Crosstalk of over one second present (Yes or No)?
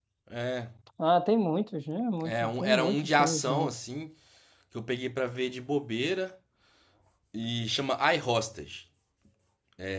Yes